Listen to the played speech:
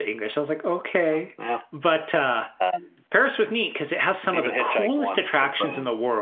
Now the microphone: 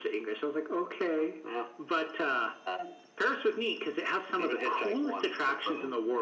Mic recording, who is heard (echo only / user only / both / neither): echo only